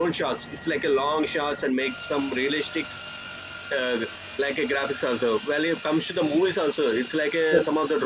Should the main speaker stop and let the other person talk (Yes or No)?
No